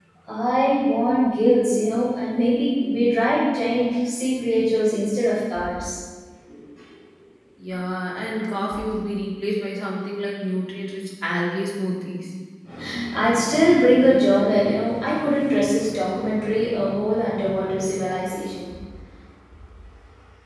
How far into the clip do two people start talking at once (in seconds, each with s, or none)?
none